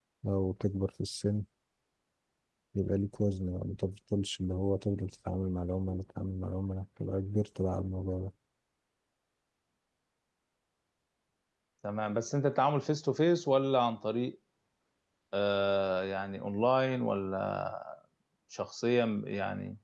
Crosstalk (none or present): none